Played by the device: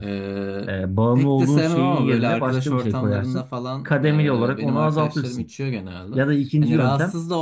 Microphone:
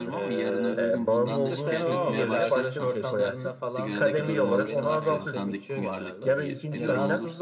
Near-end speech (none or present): present